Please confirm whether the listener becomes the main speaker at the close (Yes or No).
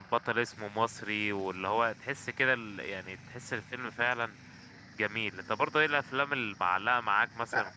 No